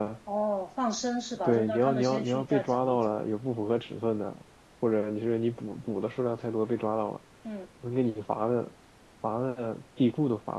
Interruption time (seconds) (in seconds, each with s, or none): 1.4 s